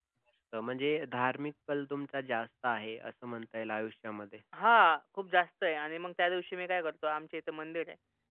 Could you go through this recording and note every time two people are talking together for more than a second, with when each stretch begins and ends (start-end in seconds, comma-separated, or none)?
none